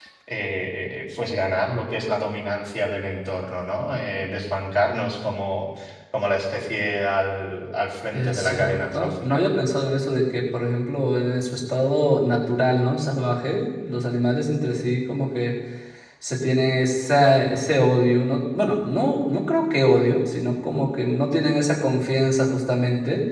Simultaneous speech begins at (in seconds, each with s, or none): 8.1 s